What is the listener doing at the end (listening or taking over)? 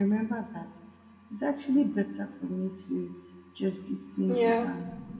listening